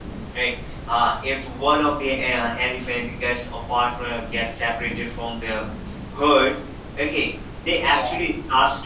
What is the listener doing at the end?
listening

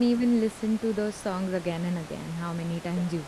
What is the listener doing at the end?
taking over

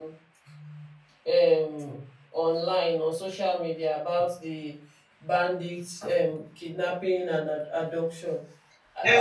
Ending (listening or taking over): taking over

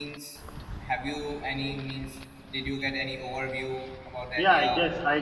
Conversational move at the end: taking over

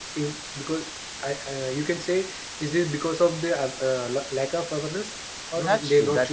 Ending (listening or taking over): taking over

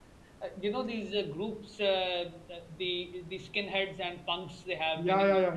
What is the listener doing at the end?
taking over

